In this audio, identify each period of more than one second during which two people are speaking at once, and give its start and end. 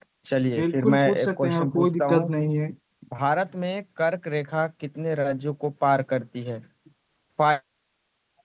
0.6-2.3

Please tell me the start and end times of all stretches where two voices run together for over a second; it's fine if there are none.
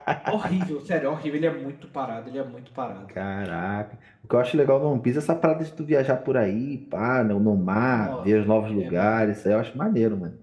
7.9-9.5

